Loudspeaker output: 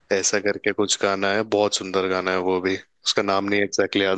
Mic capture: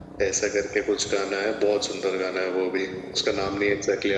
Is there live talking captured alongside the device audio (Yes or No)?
No